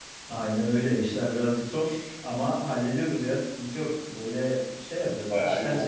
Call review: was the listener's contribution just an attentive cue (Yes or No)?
Yes